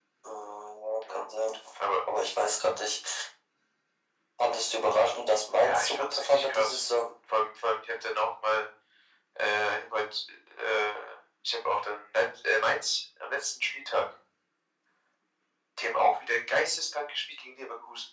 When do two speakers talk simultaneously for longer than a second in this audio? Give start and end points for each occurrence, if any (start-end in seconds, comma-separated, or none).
5.6-6.8